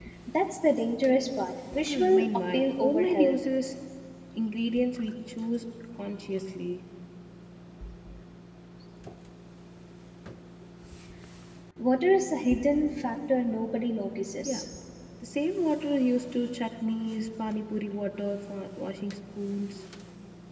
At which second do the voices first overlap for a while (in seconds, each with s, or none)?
1.9 s